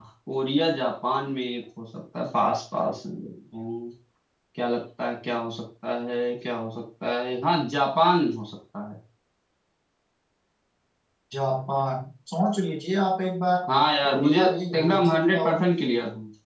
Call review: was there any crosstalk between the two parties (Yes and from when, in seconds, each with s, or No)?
Yes, from 14.0 s